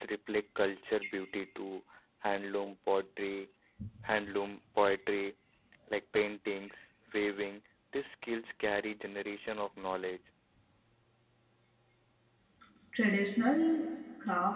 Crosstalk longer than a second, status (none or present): none